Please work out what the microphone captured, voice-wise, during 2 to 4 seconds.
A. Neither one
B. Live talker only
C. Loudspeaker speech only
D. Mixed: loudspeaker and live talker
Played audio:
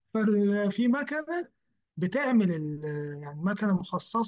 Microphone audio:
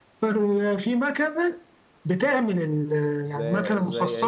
D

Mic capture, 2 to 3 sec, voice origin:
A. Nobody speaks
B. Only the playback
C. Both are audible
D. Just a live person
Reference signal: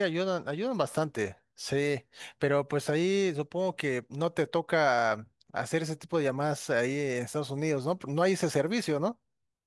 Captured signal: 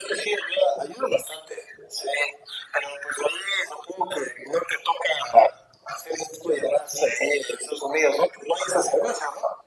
B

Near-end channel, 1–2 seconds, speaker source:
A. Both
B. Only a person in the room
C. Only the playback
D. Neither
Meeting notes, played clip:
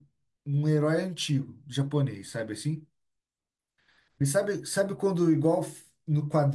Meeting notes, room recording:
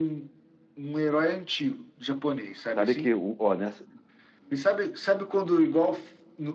C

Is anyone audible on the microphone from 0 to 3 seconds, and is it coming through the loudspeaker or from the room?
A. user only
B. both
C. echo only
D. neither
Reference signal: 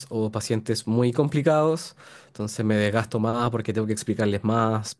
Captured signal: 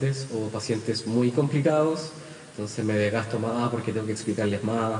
C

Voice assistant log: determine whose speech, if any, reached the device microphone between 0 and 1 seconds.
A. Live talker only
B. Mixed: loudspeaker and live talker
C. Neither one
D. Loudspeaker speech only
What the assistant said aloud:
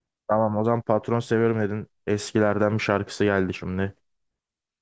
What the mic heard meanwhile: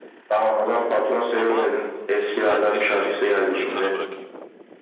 D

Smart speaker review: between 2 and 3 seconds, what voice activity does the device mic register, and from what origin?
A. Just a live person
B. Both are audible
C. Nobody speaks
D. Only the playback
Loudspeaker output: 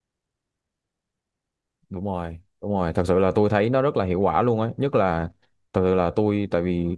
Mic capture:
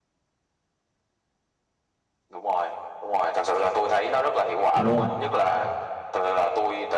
D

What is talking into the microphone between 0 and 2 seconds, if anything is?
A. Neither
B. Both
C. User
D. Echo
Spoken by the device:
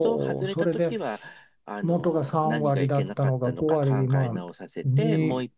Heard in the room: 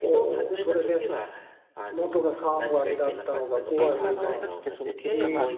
D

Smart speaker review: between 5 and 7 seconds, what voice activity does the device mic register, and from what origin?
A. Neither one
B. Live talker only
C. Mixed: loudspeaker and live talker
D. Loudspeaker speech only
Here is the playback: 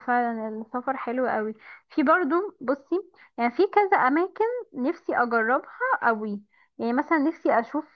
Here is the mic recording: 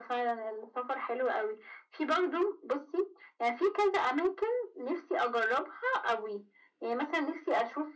D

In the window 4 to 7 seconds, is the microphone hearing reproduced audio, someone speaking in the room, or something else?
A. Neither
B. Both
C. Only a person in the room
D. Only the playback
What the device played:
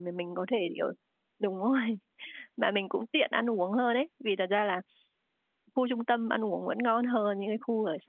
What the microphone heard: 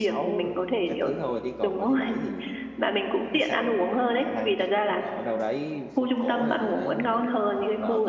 B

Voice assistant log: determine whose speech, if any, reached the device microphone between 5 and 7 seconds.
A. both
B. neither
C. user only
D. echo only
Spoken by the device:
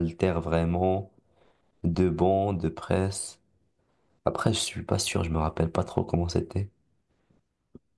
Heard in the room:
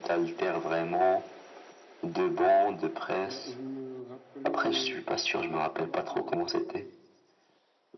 A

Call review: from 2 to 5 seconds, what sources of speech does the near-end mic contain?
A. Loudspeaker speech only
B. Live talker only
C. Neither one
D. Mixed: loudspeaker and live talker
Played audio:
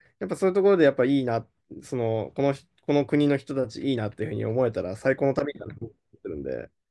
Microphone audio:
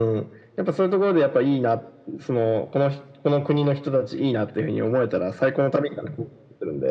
A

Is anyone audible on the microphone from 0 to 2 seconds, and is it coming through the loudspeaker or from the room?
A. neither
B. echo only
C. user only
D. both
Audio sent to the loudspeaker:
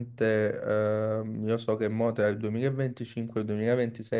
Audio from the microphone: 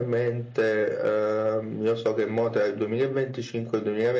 B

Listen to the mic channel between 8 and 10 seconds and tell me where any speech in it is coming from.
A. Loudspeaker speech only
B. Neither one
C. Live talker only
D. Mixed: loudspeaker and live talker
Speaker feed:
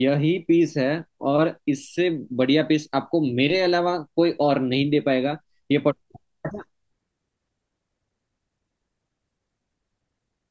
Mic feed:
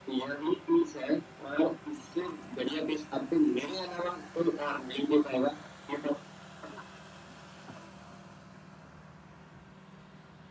B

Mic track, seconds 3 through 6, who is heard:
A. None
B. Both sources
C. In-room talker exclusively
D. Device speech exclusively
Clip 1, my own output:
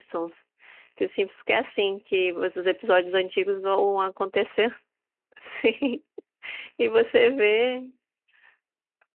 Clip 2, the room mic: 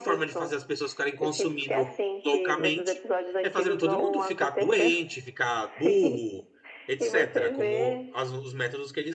B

